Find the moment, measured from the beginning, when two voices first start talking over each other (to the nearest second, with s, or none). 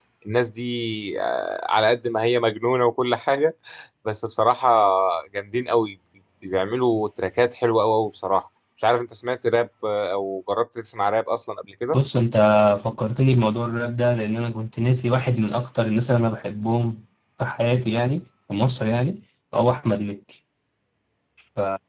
none